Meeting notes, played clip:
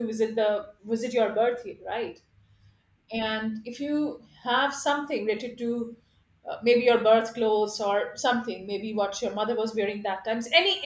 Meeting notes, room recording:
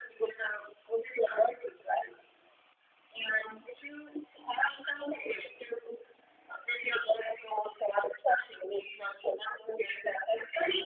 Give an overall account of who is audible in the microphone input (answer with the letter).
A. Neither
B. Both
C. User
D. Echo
D